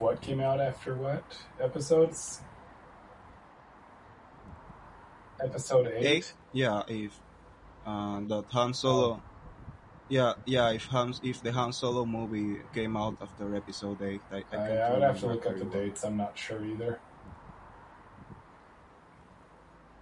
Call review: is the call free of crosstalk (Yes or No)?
No